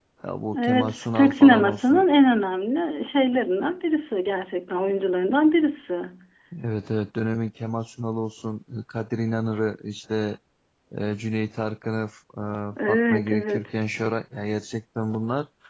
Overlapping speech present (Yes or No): Yes